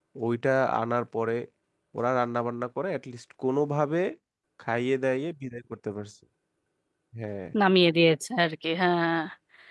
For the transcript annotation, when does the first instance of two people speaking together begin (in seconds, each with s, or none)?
none